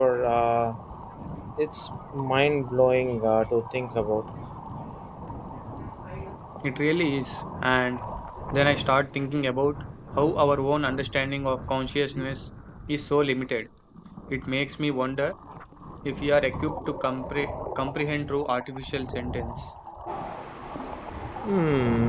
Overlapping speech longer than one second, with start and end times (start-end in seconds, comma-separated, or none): none